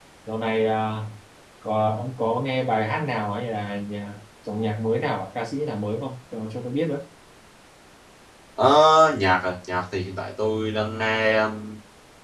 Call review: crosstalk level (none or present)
none